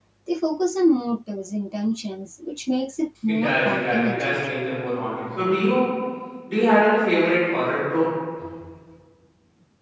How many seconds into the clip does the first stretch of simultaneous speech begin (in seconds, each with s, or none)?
3.3 s